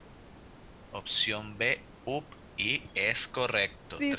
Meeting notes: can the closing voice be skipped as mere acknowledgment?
No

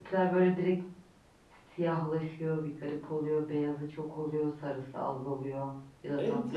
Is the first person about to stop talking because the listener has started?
Yes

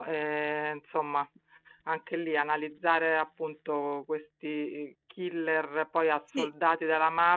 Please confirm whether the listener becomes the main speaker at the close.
No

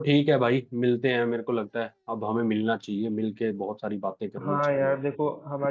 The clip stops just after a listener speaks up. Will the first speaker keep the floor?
No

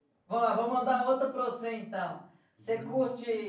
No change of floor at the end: Yes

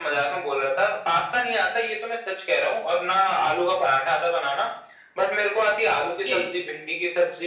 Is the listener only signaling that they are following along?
Yes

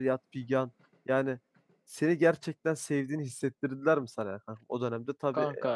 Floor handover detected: No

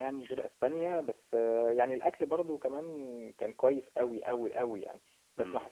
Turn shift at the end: No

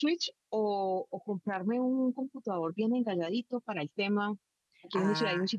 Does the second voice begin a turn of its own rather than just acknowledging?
No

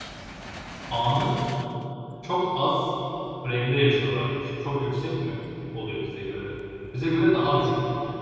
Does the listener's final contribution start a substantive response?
No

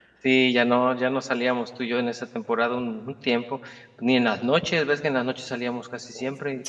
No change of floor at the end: No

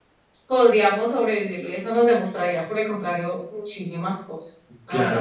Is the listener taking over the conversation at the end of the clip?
Yes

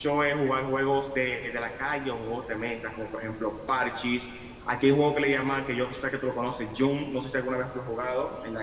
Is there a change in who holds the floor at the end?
Yes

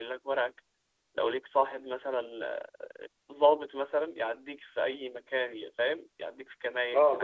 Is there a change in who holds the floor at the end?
Yes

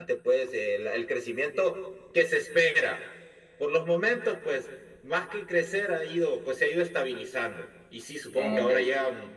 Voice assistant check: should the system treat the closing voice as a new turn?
No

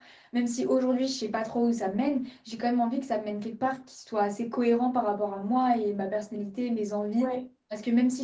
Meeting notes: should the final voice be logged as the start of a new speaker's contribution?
No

